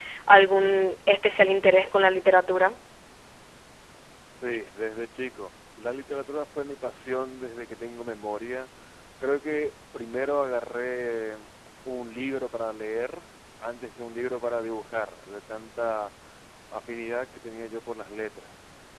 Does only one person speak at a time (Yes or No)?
Yes